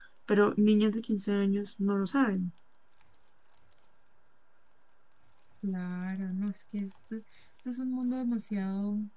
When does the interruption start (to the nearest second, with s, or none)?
none